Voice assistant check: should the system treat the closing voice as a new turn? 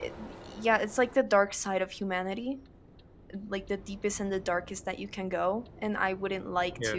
No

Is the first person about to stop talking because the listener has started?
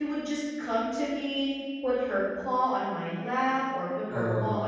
No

